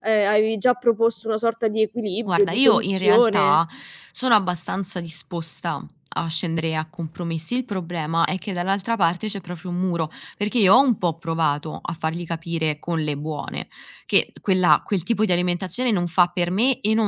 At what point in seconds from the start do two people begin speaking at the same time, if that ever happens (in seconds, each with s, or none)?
2.3 s